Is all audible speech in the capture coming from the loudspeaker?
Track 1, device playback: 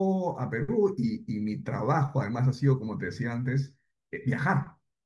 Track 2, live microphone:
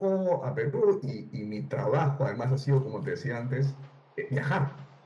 Yes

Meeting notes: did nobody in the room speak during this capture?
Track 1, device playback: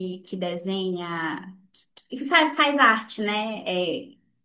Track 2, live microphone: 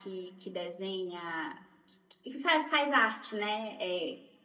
Yes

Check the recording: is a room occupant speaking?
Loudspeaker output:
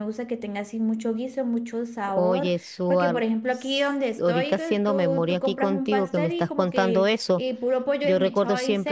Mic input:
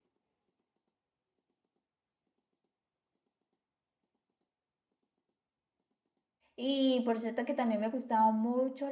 Yes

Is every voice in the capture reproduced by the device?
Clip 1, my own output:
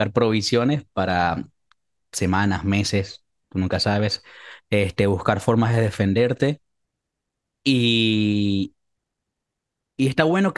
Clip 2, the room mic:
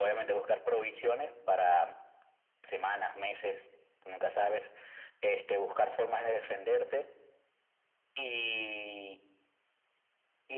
Yes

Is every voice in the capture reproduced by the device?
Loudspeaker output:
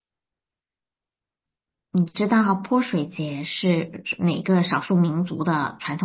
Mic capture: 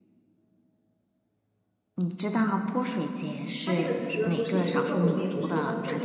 No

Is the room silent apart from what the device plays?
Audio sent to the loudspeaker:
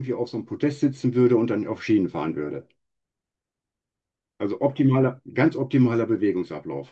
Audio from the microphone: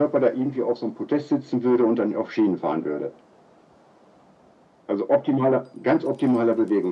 Yes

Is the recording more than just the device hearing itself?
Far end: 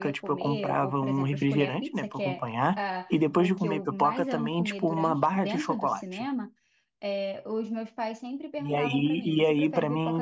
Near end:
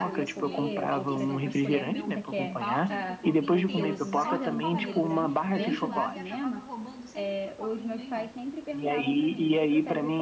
Yes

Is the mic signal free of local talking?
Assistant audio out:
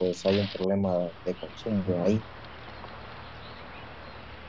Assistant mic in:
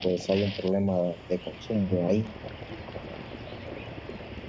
Yes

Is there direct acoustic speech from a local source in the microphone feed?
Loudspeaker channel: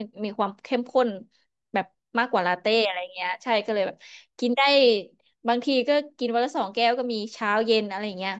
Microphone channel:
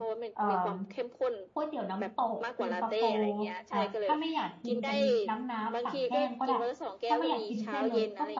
Yes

